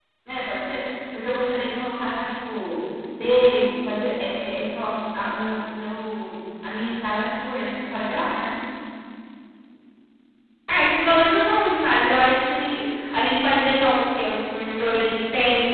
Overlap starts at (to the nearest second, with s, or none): none